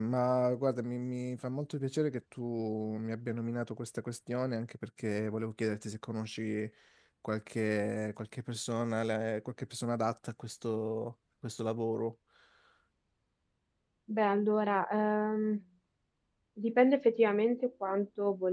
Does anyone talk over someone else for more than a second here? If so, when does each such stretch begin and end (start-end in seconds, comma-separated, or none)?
none